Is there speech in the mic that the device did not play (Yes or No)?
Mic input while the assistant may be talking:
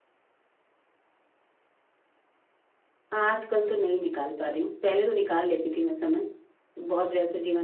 Yes